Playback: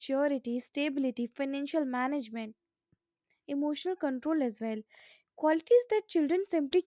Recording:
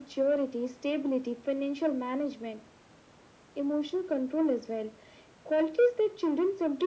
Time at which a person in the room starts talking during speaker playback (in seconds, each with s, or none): none